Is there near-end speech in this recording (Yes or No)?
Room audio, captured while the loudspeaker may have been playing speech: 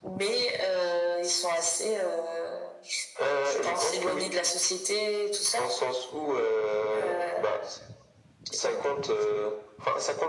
No